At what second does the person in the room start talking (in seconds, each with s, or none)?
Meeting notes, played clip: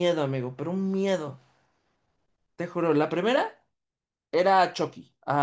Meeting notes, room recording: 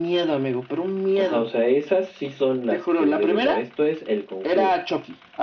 1.1 s